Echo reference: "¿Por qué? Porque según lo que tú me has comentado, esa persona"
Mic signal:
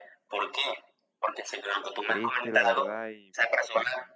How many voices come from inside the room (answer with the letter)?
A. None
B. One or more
B